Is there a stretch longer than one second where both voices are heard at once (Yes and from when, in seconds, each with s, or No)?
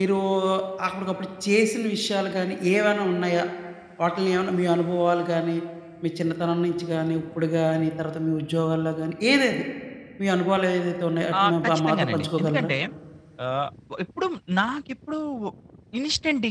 Yes, from 11.3 s